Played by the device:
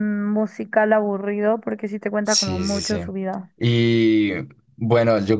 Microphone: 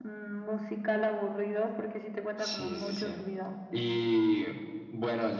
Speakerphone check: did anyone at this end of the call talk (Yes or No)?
No